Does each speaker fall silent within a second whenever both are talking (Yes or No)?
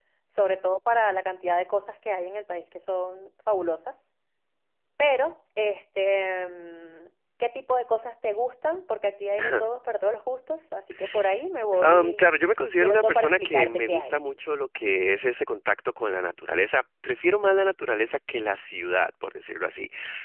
No